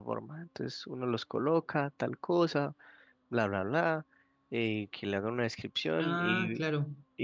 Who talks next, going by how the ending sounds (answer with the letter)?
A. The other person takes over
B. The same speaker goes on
B